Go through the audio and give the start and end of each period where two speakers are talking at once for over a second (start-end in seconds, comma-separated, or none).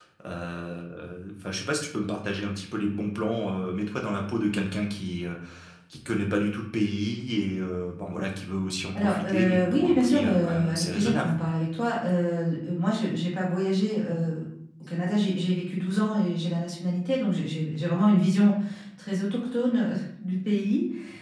8.9-11.4